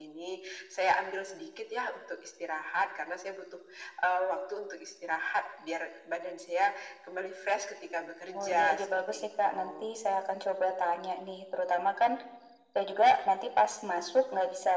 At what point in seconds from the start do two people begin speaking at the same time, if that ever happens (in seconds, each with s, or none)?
8.3 s